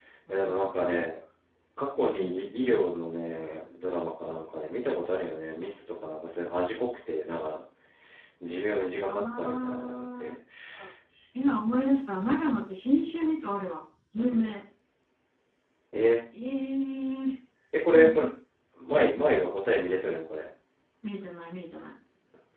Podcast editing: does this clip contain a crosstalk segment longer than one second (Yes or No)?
Yes